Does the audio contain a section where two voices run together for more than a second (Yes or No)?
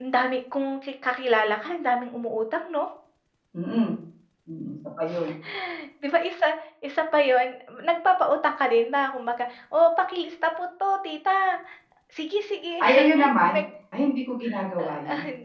No